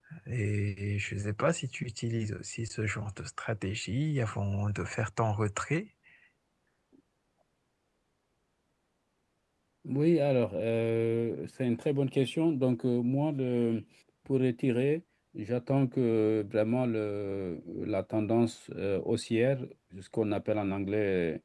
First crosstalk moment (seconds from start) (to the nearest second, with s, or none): none